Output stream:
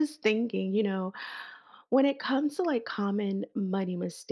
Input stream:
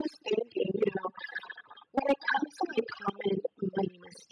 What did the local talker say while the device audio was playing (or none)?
none